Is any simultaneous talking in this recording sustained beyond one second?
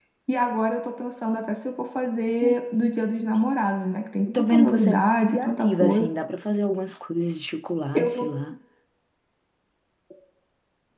Yes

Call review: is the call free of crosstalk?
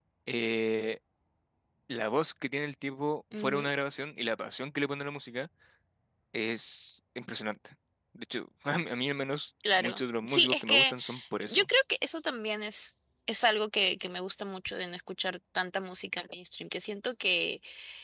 No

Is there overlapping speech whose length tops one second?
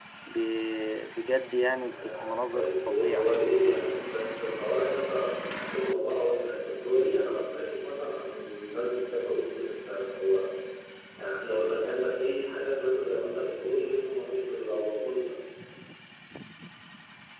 Yes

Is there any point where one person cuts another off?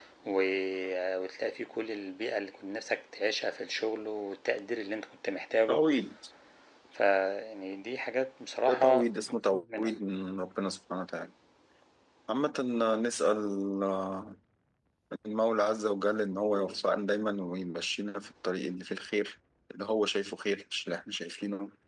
Yes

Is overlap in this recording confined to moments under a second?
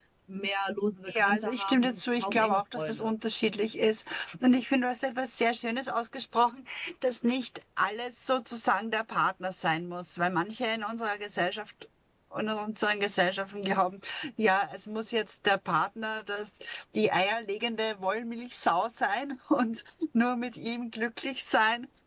No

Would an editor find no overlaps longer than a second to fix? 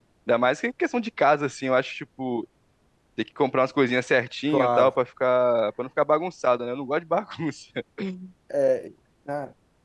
Yes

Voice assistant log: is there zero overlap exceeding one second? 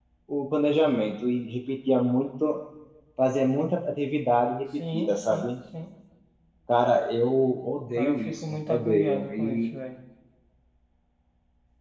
No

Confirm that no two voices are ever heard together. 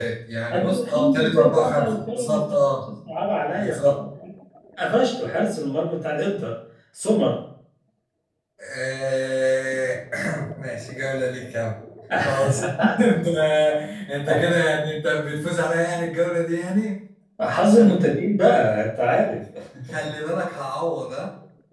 No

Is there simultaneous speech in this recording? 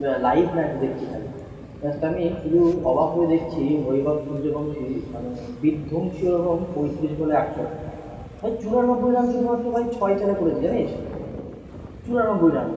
No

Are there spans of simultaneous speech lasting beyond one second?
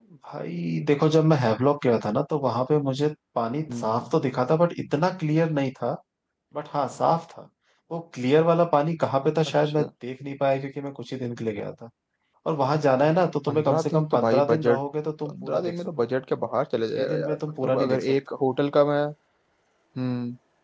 Yes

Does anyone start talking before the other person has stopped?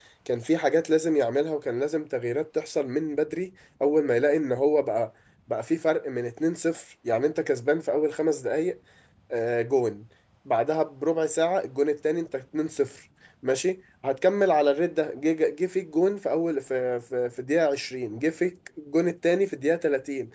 No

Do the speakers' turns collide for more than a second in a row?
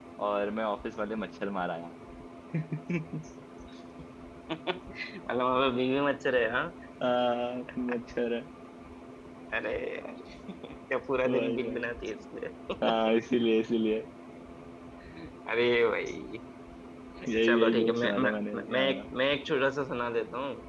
Yes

